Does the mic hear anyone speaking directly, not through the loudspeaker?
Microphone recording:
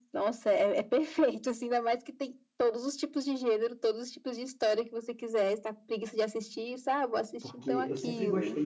Yes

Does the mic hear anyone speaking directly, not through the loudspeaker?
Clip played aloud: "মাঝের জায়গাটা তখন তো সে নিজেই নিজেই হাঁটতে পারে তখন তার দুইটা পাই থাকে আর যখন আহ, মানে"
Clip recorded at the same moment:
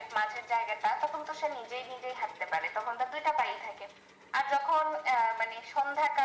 No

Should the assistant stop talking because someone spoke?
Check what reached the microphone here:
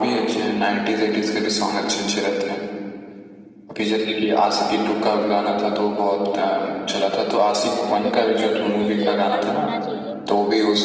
Yes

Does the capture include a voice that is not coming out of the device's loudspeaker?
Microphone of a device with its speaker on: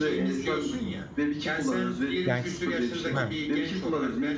Yes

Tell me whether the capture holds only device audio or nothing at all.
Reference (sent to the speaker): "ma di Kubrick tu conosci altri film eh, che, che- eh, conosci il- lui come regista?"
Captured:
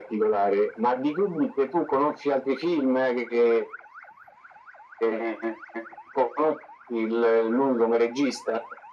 Yes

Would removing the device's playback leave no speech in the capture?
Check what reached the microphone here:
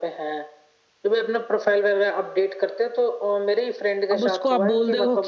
No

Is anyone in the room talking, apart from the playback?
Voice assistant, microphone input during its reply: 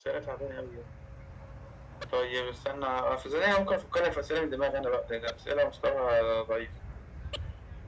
No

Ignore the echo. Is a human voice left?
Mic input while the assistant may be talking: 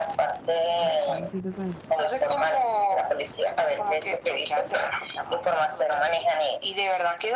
Yes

